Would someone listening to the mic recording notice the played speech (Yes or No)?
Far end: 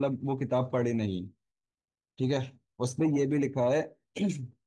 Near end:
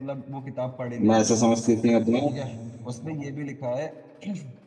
Yes